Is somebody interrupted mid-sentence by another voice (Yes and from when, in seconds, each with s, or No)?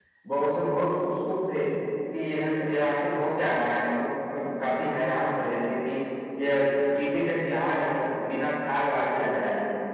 No